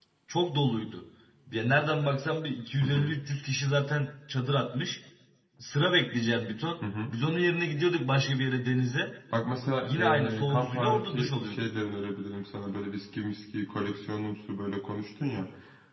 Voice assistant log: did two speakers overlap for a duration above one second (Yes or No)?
Yes